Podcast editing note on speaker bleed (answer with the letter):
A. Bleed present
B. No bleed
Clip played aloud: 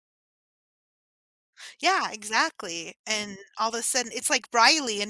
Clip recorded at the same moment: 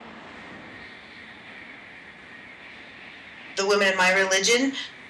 B